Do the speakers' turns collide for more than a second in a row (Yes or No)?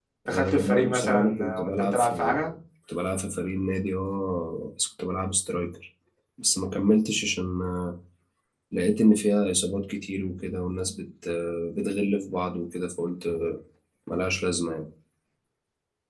Yes